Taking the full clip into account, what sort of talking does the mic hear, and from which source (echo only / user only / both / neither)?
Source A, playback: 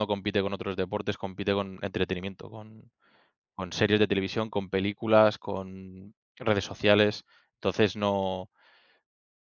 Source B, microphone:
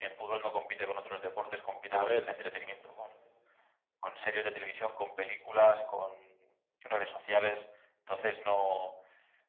both